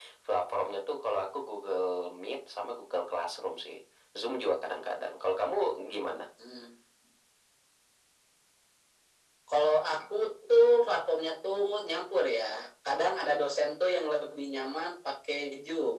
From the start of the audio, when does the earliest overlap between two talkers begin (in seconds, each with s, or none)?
none